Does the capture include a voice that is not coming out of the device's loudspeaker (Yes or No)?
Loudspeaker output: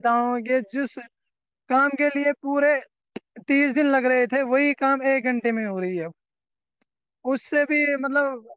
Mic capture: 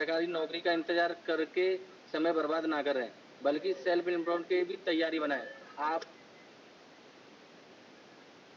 Yes